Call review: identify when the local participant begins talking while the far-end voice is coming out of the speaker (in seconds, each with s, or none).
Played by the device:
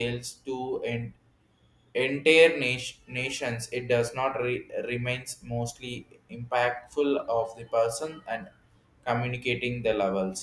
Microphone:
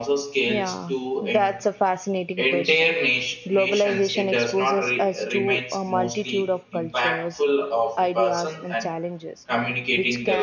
0.4 s